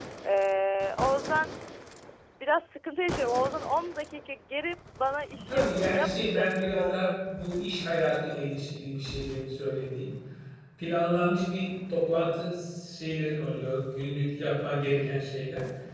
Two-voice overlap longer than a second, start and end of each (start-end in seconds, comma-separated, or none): 5.5-7.2